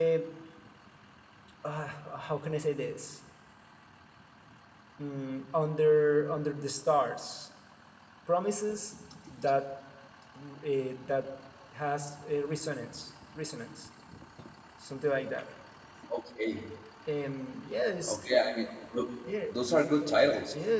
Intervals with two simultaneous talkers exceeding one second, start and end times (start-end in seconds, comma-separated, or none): none